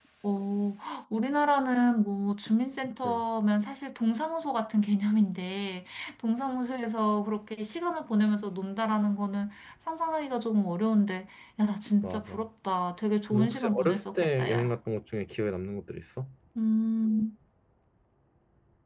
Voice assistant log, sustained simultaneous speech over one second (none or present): present